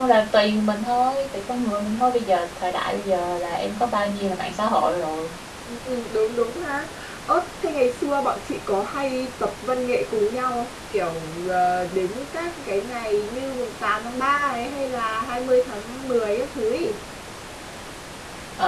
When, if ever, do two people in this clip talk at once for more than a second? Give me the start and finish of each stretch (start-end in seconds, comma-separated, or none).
none